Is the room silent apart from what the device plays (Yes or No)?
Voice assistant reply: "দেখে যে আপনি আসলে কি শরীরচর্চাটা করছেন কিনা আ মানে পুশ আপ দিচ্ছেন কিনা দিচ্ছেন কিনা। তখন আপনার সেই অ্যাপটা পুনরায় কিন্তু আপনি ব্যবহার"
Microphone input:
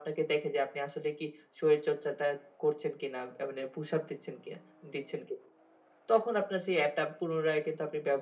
Yes